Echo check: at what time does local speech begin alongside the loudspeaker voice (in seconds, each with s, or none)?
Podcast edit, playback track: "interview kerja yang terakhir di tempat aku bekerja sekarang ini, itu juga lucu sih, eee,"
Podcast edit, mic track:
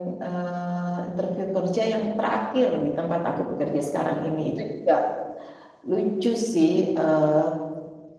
none